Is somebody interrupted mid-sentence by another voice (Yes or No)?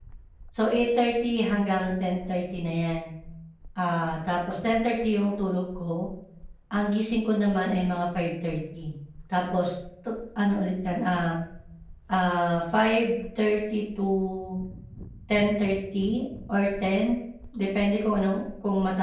No